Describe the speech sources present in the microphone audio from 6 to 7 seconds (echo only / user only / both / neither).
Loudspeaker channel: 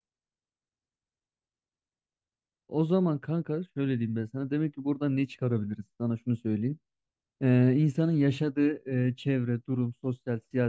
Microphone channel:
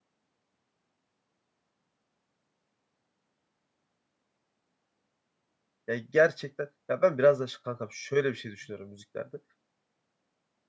user only